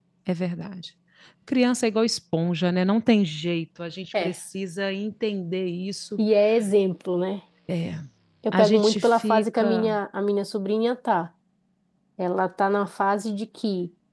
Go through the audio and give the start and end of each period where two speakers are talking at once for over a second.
8.5-9.9

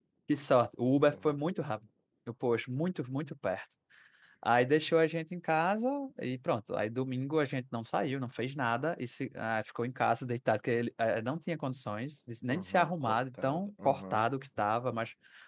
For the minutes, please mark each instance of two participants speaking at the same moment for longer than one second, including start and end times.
12.5-14.3

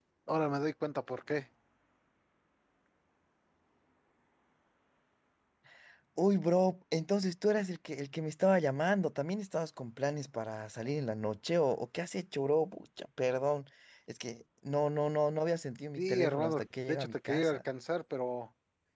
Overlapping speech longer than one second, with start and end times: 16.0-17.6

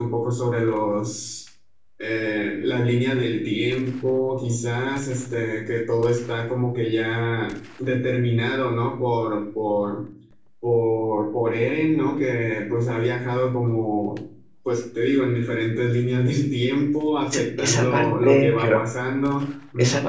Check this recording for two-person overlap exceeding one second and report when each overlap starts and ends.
17.3-18.8

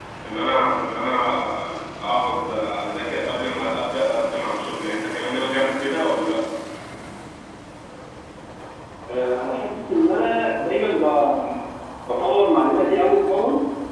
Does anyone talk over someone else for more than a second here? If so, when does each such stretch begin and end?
none

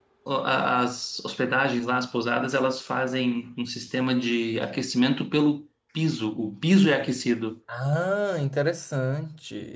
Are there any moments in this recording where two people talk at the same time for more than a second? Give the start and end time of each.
none

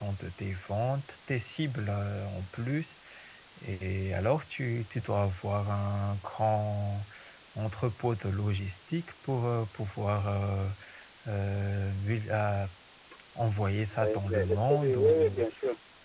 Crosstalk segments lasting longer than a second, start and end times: 13.9-15.4

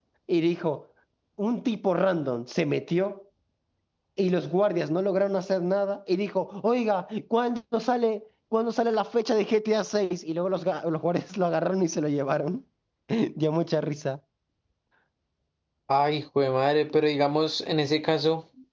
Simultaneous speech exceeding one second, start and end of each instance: none

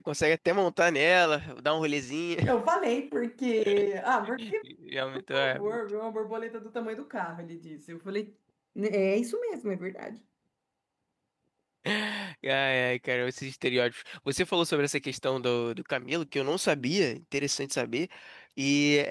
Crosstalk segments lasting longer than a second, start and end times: none

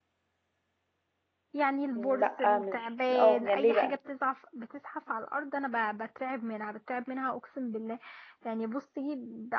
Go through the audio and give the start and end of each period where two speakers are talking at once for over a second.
2.2-4.0

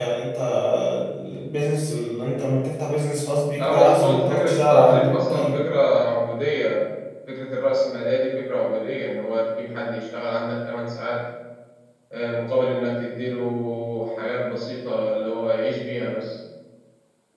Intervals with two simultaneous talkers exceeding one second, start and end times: 3.6-5.6

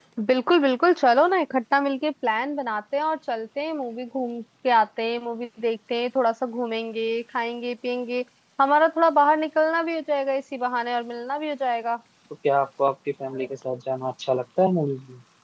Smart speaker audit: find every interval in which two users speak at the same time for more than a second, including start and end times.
none

